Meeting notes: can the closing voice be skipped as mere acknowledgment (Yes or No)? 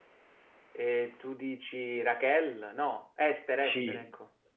No